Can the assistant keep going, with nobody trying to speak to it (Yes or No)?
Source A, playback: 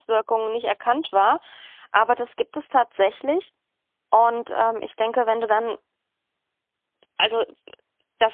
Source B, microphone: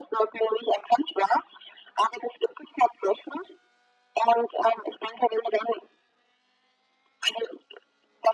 Yes